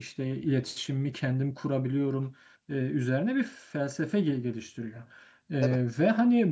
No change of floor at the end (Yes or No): Yes